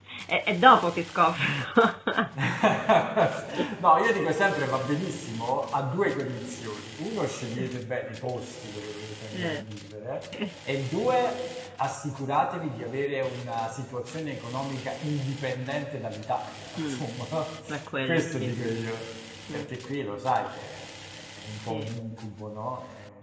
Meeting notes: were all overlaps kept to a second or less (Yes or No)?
Yes